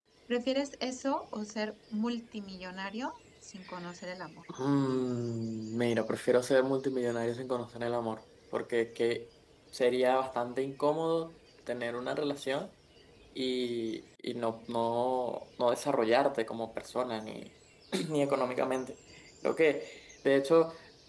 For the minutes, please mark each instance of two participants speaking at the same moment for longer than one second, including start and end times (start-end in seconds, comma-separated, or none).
none